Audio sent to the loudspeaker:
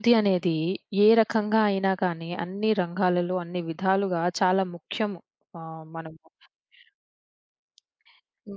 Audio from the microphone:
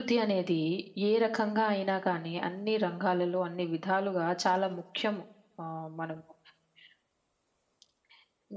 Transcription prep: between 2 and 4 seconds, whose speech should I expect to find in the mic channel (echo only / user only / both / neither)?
echo only